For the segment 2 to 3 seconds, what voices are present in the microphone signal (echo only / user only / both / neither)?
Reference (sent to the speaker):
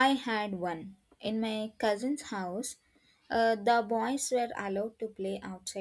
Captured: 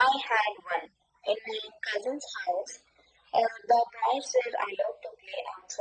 echo only